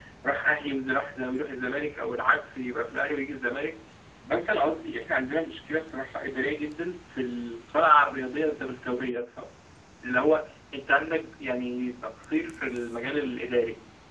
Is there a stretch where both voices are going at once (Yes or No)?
No